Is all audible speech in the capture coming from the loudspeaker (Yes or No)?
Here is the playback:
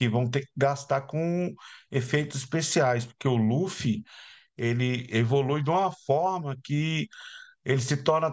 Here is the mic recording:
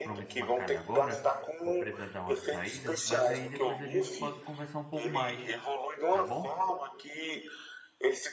No